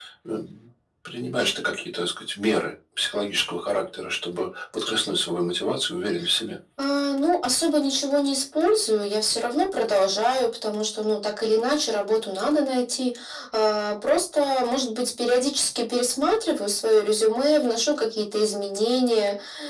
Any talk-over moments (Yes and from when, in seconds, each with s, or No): No